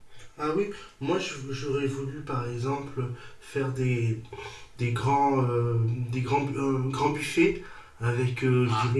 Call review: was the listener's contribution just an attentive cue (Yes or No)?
Yes